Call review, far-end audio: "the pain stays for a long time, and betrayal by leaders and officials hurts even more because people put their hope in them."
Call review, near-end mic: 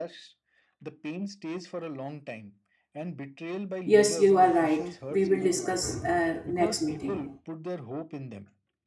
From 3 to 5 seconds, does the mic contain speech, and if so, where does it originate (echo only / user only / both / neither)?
both